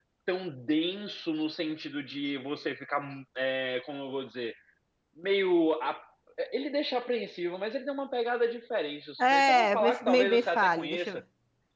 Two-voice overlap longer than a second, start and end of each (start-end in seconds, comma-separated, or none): 9.2-11.2